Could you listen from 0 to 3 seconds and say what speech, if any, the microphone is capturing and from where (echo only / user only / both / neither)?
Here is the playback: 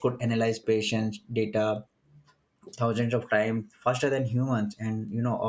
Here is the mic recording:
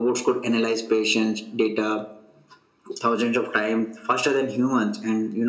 echo only